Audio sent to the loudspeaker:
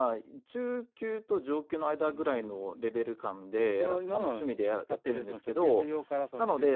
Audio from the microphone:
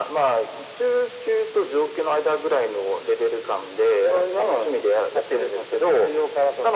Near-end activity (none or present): none